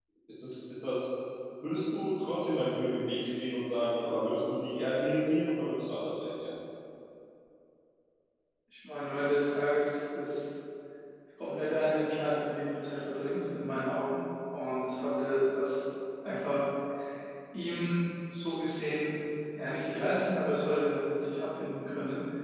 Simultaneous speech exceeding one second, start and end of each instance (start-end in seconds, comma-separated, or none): none